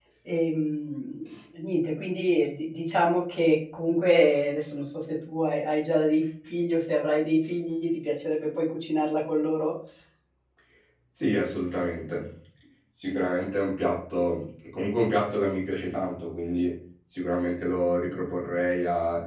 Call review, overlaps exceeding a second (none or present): none